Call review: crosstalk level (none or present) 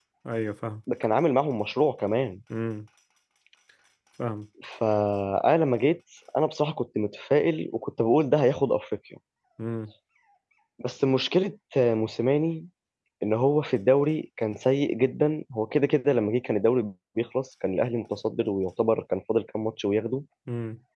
none